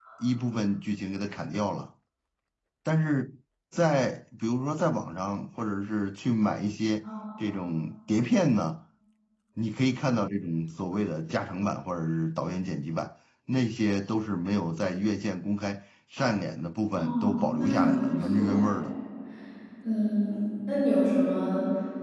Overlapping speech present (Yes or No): Yes